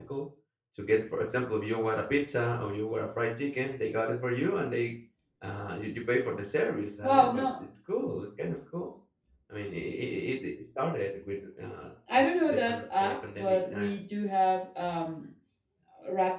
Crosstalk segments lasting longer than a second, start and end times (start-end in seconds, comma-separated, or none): 12.2-13.9